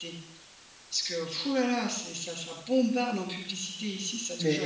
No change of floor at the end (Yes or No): No